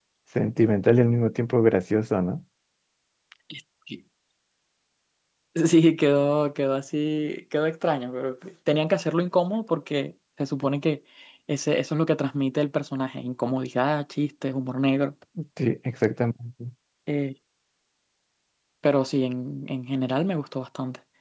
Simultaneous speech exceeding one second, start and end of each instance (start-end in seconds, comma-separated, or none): none